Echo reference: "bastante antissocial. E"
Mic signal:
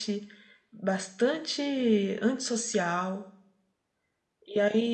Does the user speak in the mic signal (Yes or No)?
No